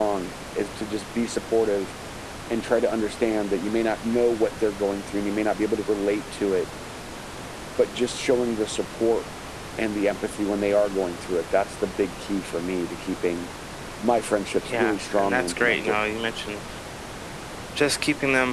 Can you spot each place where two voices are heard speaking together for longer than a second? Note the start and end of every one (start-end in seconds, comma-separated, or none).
14.7-16.0